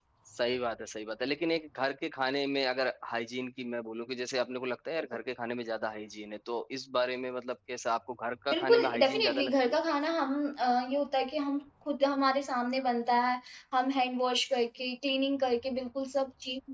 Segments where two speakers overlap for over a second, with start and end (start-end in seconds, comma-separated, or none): 8.5-9.7